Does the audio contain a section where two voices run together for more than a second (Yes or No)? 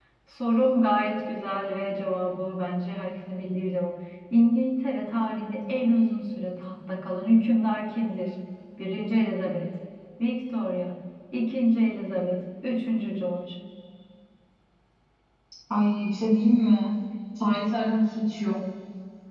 No